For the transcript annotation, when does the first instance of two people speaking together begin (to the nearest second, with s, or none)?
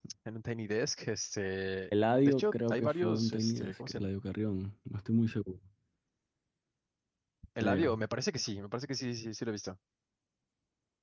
2 s